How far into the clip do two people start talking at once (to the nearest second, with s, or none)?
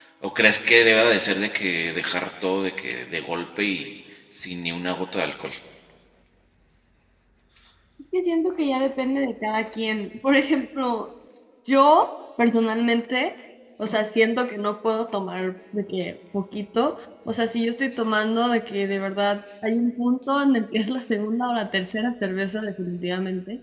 none